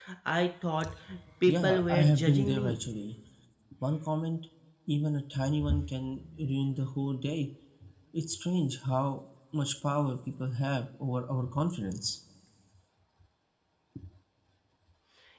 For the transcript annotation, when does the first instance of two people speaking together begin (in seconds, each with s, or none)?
1.5 s